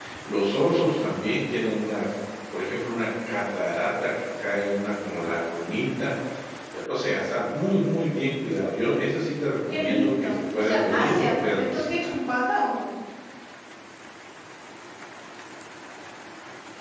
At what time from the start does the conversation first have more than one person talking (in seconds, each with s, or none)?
9.7 s